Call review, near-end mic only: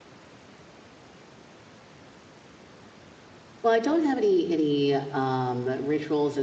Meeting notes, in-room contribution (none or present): present